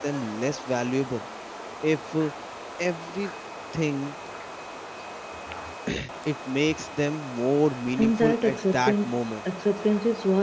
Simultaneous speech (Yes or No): Yes